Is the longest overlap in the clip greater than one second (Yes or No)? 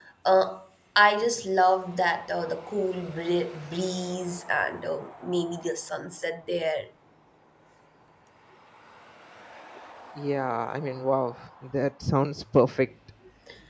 No